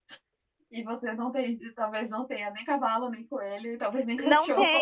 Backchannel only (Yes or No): No